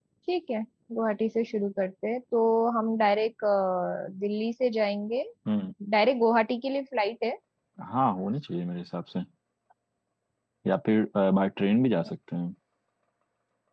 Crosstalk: none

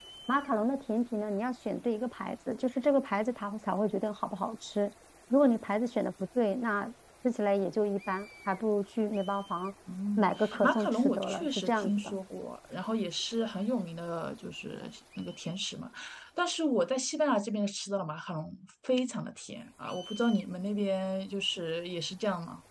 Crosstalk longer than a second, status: present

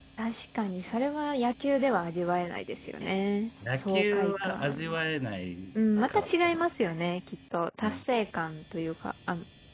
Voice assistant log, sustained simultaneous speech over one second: present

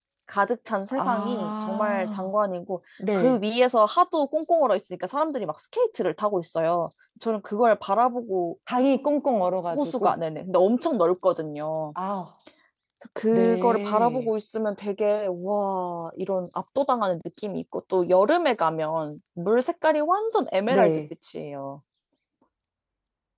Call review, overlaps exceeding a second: present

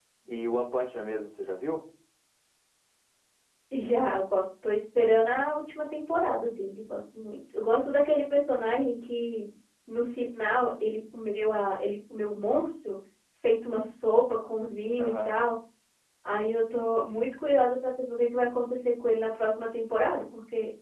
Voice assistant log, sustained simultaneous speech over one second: none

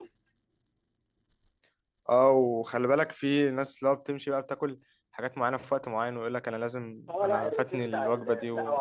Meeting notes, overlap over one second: present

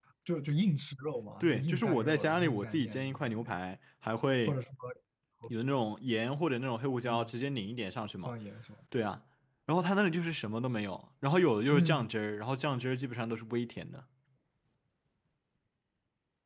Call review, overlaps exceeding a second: present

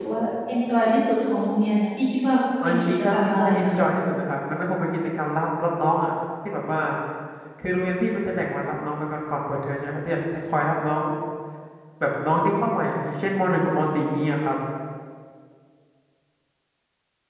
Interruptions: present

